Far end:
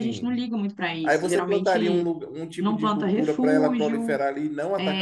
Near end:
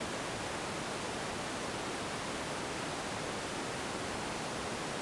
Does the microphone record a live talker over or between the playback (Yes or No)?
No